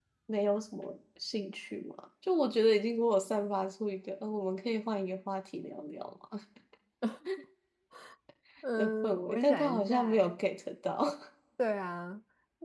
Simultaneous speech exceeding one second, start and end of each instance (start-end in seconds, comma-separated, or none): 8.8-10.2